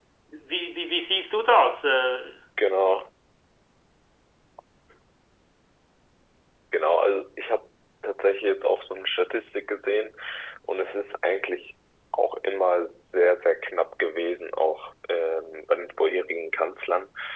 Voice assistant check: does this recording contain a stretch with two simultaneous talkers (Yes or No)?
No